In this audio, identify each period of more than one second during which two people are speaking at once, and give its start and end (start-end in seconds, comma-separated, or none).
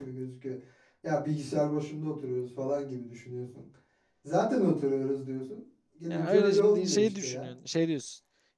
6.1-7.5